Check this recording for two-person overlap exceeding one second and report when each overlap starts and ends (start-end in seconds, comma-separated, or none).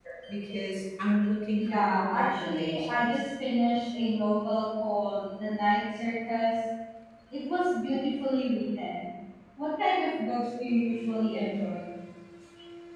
1.6-3.1